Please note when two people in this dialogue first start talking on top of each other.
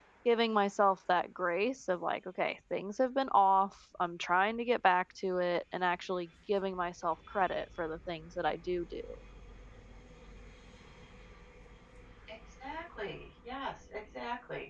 none

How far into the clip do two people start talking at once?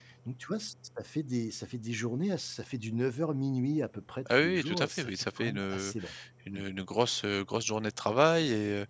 4.3 s

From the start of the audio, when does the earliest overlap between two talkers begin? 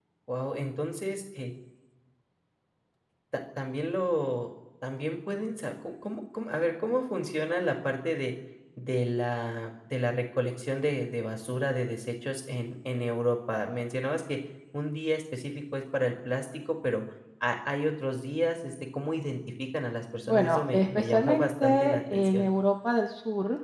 20.2 s

